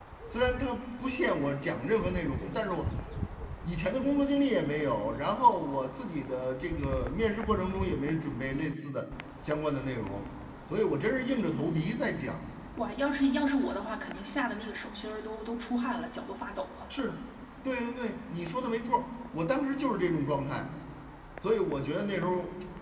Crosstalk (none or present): none